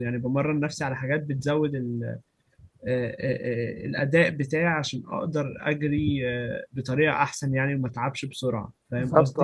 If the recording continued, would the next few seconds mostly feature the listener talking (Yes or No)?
Yes